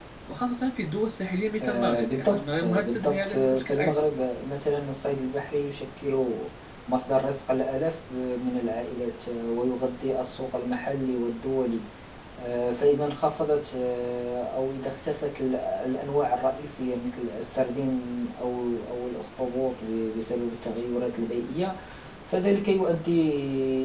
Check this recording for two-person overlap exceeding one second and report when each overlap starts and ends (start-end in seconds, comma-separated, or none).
1.6-4.0